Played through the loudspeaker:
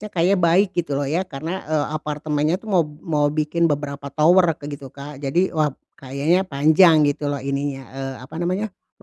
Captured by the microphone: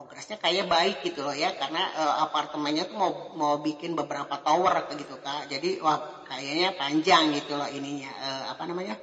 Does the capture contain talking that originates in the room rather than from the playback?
No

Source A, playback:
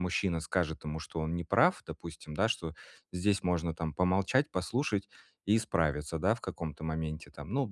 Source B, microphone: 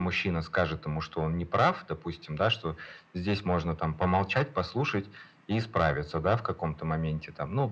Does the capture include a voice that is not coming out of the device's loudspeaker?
No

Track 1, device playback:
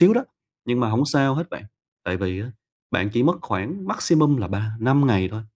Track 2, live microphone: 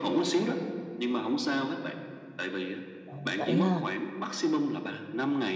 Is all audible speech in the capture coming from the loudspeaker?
No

